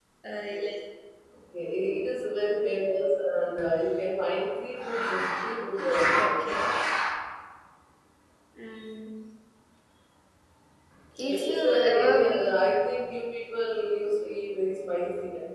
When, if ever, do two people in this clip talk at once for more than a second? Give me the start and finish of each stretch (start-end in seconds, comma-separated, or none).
11.2-12.4